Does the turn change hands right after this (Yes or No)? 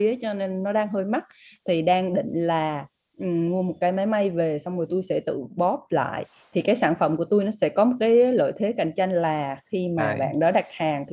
No